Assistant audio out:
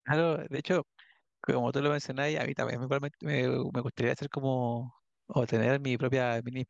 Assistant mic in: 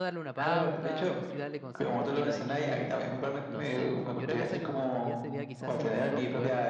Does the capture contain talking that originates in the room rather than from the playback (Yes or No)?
Yes